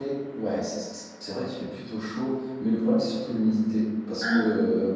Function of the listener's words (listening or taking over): listening